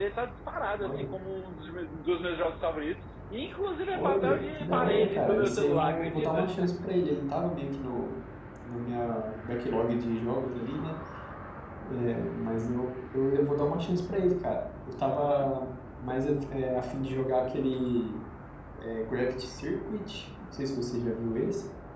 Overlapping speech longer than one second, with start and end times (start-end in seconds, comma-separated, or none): 3.9-6.4